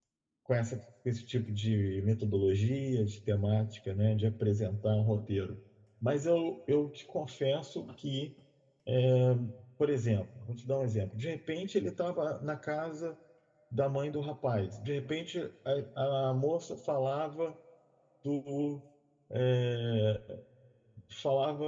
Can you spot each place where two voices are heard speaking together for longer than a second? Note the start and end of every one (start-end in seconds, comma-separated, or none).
none